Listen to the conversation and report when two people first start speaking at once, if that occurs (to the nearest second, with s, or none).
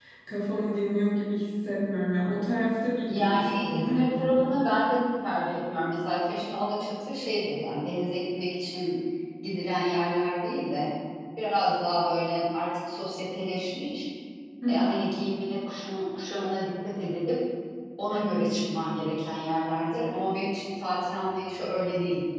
3 s